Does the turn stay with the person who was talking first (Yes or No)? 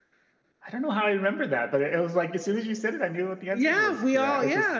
No